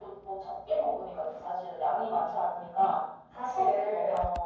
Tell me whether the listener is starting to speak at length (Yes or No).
Yes